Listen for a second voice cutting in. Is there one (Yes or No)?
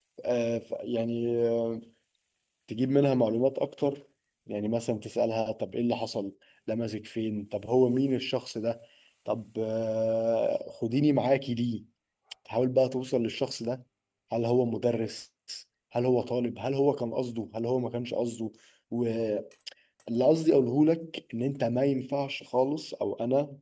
No